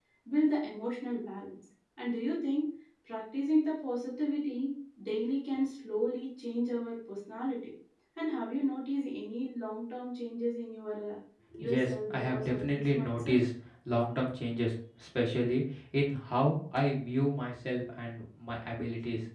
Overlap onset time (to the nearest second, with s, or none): 12 s